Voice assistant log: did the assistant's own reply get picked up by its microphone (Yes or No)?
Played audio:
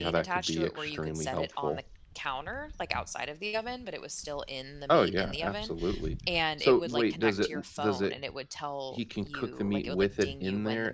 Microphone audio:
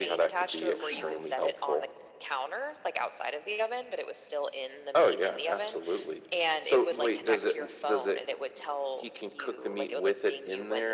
Yes